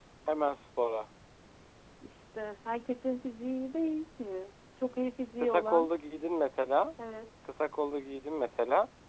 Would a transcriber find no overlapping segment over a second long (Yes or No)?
Yes